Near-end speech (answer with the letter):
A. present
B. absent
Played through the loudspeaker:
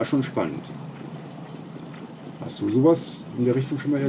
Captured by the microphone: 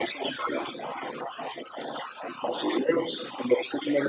B